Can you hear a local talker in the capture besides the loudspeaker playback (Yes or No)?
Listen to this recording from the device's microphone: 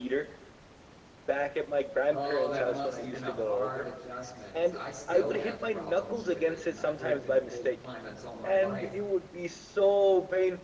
Yes